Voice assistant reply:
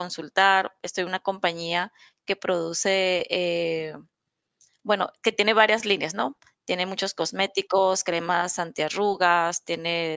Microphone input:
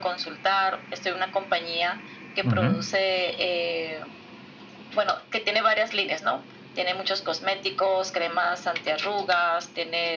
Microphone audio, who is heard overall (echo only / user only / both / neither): both